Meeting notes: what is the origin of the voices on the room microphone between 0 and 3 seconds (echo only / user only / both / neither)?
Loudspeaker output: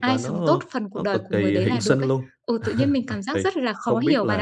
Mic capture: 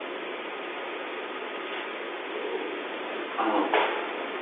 neither